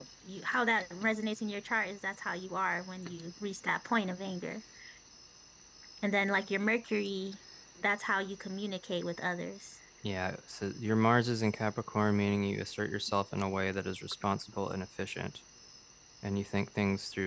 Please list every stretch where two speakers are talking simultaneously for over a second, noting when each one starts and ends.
none

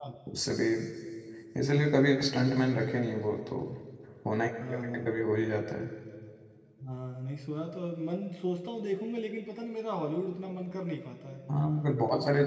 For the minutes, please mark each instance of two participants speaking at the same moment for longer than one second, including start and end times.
none

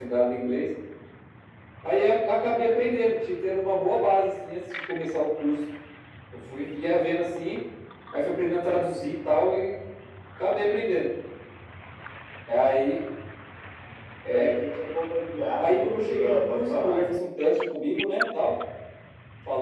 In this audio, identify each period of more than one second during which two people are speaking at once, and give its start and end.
15.6-17.0

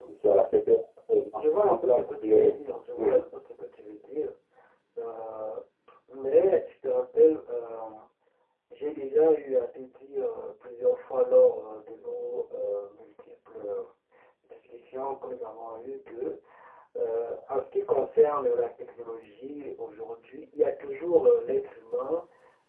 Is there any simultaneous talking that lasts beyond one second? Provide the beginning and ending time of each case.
1.3-2.5

